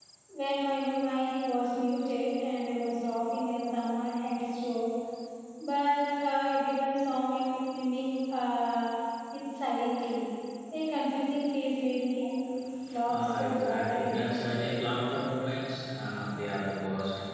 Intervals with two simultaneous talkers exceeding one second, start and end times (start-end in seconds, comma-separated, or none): 13.1-14.3